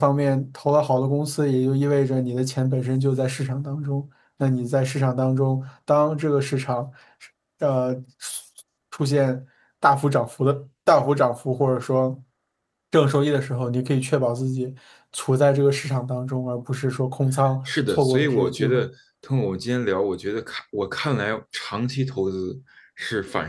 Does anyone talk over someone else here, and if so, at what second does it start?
18 s

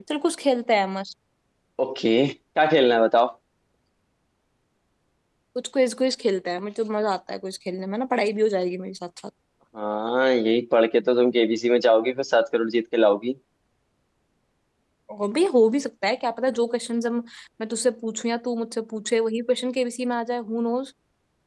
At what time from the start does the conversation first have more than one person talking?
none

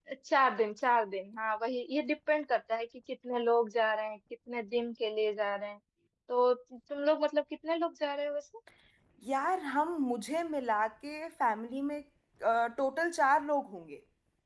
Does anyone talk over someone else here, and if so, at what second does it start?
none

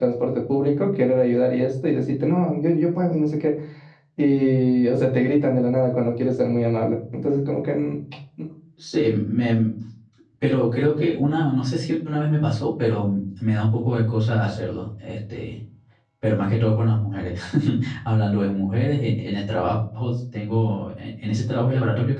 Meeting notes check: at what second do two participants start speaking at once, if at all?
none

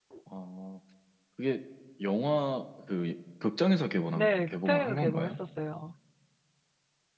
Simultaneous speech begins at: 4 s

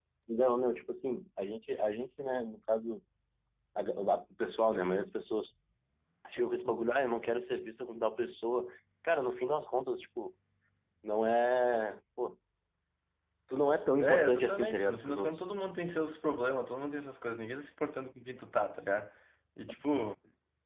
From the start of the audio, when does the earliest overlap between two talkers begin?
14 s

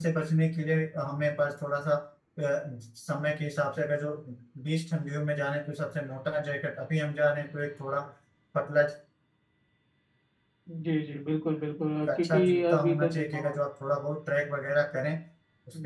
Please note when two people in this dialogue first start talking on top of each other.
12 s

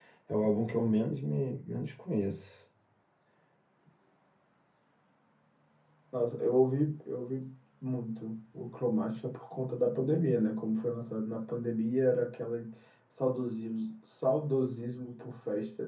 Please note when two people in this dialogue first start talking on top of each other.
none

